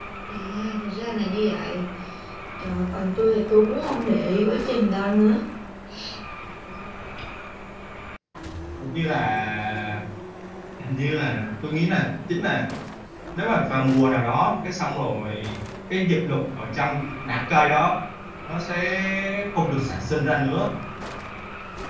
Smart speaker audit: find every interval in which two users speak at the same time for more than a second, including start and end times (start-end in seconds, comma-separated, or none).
none